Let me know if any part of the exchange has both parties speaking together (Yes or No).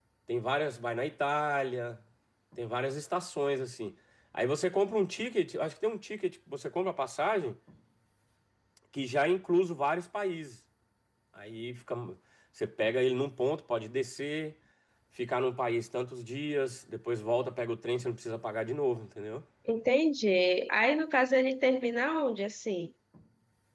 No